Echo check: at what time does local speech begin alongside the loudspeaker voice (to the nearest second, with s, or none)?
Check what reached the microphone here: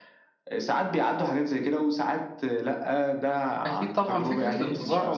4 s